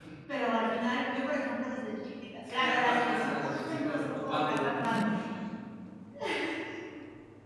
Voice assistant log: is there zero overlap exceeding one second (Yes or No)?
No